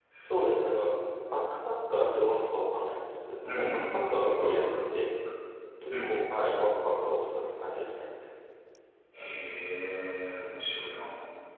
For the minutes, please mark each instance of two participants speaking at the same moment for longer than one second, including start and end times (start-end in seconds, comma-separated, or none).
3.4-4.8